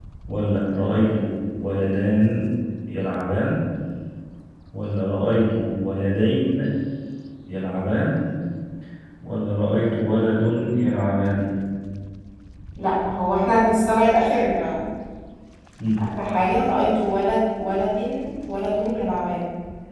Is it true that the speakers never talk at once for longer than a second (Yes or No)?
Yes